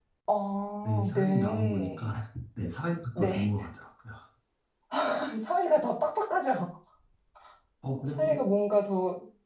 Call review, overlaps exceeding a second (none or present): present